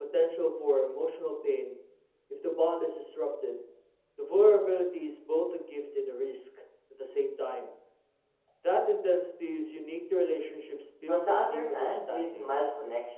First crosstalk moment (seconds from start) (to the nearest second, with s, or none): 11 s